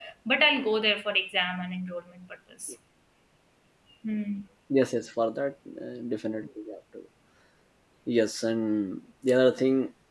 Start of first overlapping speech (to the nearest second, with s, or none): none